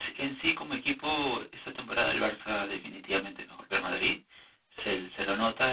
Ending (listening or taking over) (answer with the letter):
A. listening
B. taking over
A